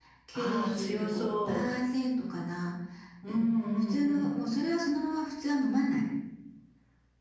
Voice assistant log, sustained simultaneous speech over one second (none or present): present